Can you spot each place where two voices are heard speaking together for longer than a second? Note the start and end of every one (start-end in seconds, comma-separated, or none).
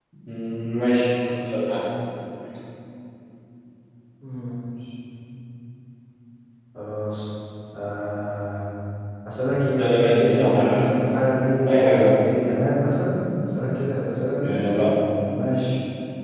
9.8-11.3